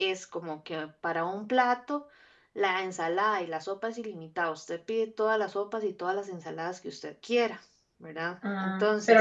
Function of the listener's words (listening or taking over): taking over